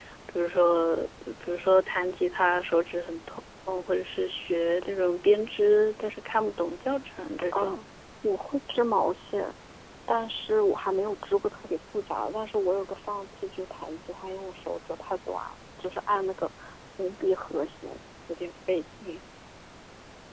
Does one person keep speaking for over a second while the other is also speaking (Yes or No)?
No